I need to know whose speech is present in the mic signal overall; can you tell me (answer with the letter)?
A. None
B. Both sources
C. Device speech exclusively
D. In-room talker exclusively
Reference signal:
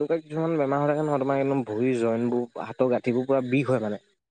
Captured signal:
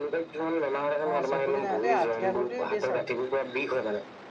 B